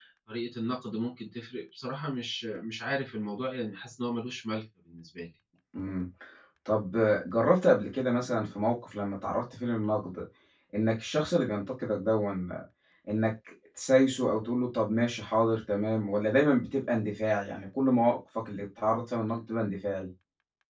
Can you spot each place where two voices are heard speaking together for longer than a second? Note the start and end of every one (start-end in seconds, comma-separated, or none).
none